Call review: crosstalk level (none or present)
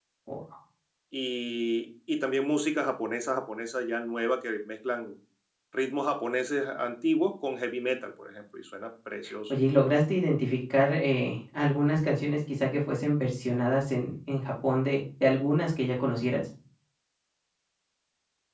none